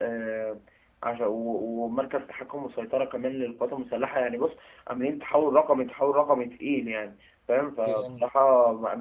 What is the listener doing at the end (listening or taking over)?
listening